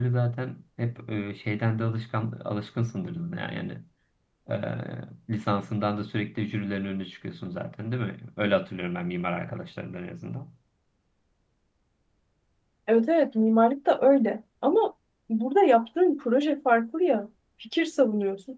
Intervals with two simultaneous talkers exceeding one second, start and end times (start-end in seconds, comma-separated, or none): none